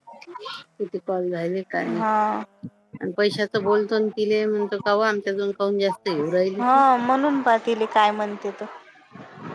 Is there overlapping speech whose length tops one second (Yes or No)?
No